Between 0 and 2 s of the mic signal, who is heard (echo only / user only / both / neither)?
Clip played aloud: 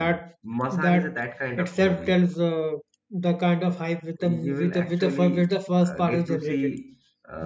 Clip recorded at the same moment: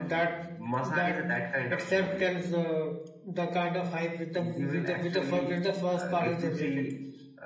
echo only